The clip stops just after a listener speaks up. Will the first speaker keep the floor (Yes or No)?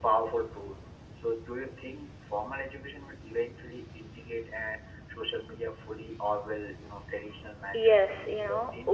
No